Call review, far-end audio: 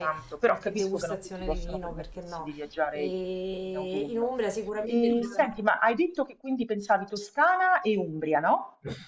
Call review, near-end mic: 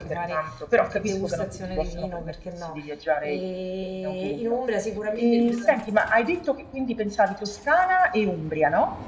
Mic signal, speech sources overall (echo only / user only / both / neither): echo only